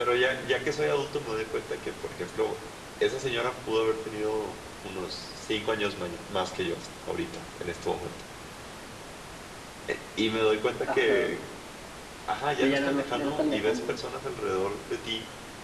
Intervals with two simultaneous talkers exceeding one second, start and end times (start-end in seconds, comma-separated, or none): 12.6-14.0